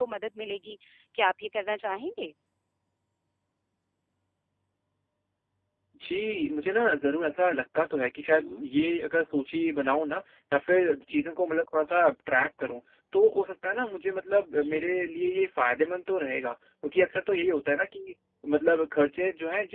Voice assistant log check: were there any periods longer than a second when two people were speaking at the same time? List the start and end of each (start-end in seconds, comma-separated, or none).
none